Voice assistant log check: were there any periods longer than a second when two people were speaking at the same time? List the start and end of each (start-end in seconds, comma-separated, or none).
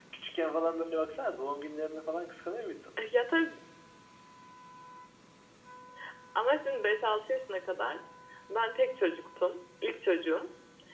none